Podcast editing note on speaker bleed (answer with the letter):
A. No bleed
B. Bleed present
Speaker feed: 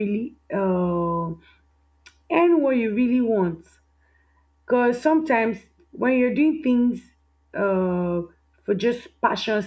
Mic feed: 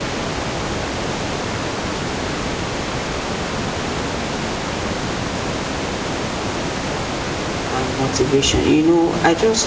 A